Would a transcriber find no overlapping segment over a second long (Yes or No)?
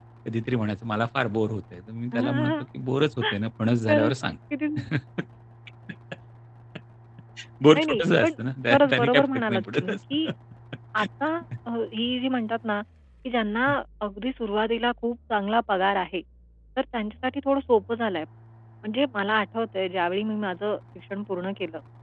No